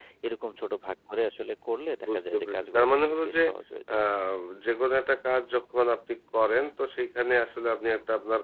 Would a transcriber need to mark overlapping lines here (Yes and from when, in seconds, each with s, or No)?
Yes, from 2.0 s